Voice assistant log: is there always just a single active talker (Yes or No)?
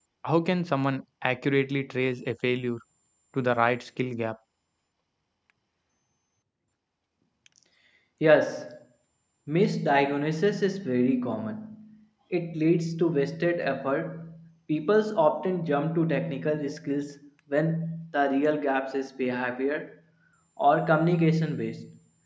Yes